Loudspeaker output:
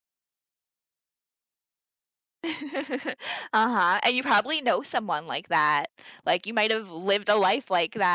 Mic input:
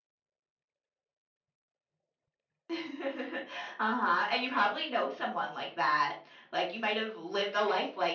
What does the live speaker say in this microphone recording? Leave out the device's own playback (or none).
none